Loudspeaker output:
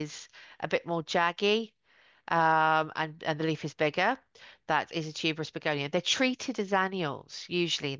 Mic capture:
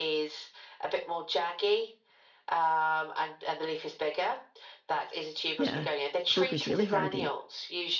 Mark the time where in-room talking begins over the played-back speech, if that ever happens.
5.6 s

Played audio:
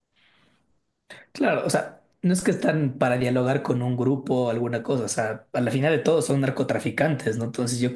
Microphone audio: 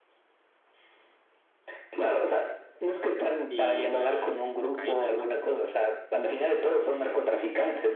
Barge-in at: 3.5 s

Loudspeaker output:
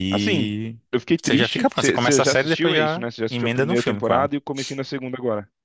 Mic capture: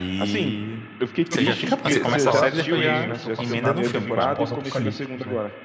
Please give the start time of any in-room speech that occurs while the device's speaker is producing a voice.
1.3 s

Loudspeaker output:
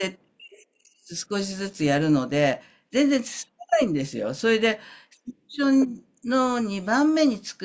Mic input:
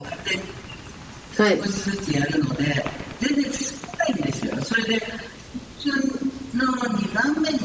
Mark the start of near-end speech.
1.4 s

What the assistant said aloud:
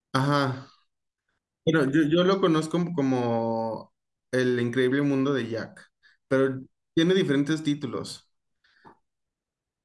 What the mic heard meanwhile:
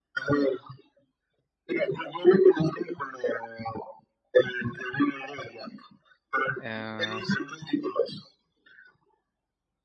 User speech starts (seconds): 6.6 s

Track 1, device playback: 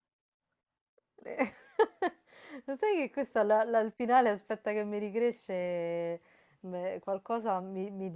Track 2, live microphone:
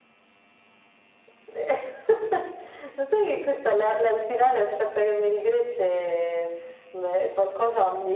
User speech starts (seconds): none

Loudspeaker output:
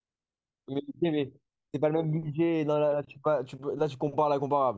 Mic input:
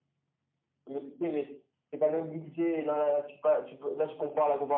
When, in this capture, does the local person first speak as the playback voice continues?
none

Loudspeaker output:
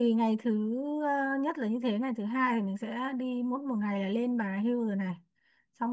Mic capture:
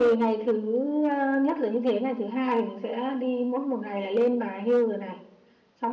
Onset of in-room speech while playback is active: none

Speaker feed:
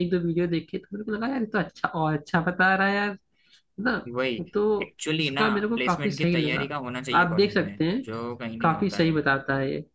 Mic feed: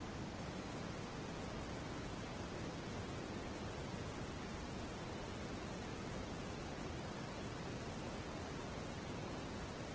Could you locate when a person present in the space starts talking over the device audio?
none

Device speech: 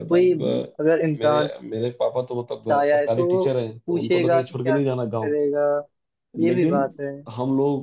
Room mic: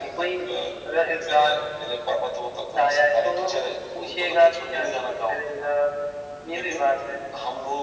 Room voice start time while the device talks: none

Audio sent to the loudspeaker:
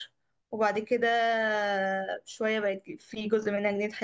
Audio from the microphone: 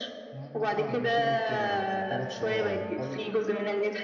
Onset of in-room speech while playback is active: 0.3 s

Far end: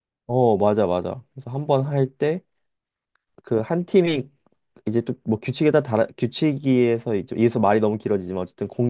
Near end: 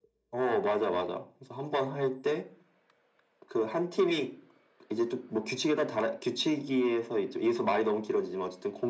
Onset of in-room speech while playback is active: none

